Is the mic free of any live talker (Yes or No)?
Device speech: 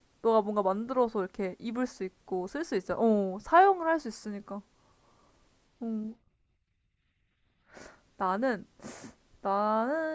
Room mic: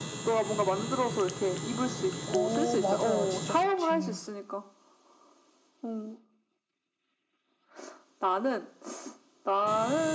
No